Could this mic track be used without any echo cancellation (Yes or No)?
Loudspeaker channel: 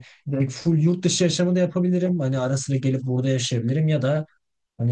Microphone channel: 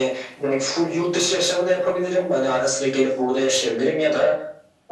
No